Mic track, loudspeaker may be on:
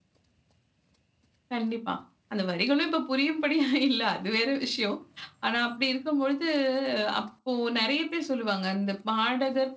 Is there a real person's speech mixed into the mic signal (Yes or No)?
Yes